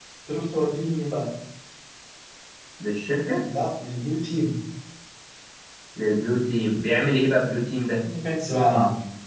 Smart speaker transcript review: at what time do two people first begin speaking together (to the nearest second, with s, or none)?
none